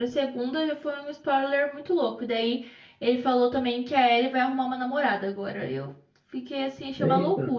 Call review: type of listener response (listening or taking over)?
taking over